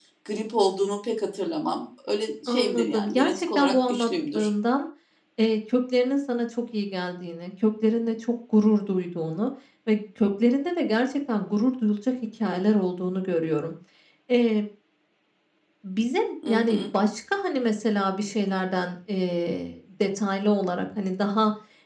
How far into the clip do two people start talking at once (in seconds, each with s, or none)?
2.5 s